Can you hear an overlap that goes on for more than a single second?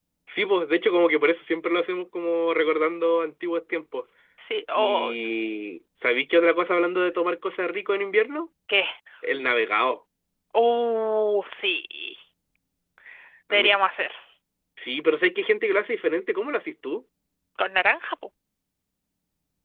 No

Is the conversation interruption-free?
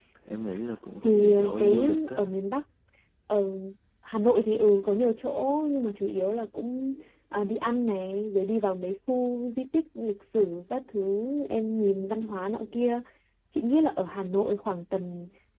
No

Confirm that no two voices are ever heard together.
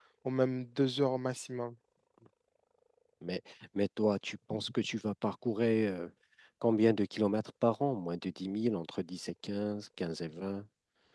Yes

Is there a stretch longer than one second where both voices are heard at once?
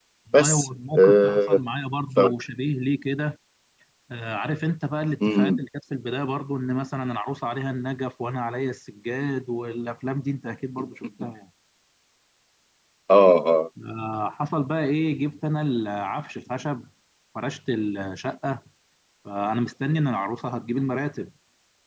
Yes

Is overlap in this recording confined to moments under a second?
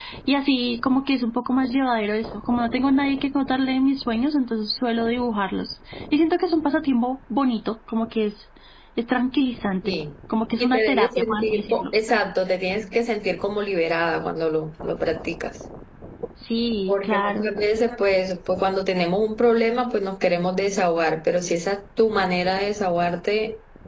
No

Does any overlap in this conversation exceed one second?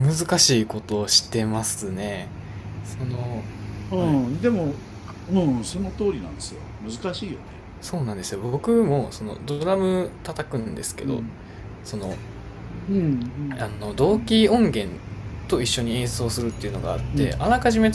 No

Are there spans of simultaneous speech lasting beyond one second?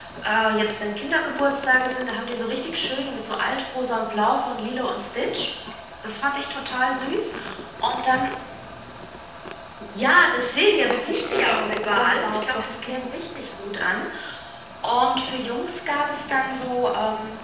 Yes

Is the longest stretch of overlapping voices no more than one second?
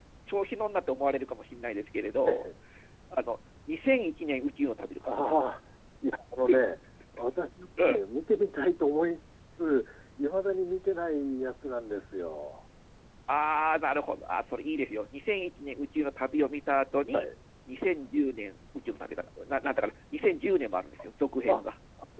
Yes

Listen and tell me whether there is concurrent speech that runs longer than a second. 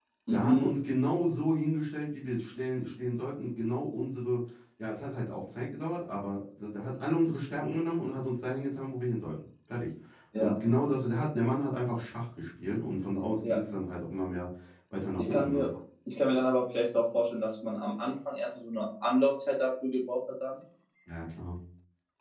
No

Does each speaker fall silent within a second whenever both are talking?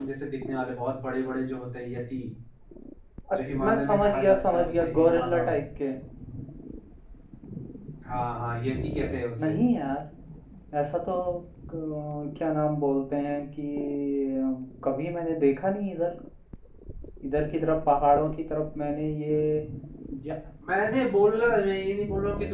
No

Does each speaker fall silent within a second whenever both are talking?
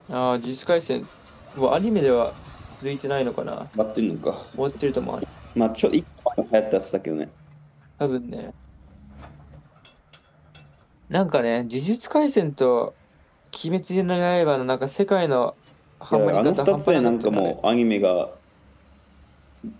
No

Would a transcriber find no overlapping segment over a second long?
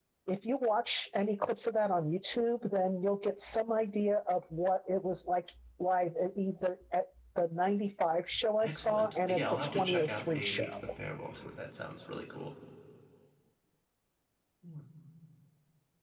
No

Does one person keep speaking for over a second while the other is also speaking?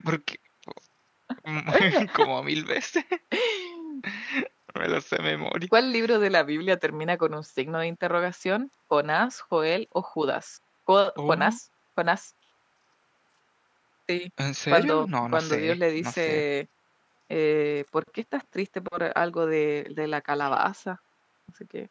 Yes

